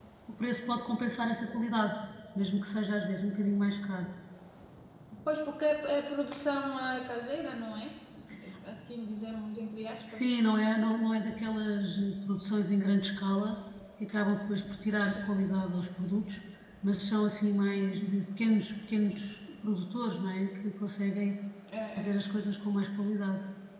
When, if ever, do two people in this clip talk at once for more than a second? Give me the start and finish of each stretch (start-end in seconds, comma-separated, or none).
none